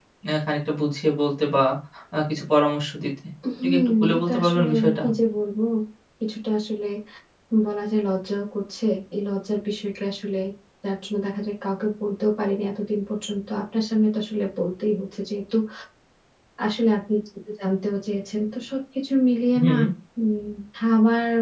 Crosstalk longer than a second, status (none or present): present